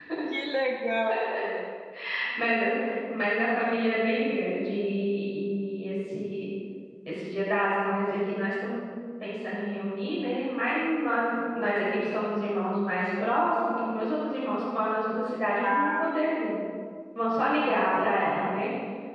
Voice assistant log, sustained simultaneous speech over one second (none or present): none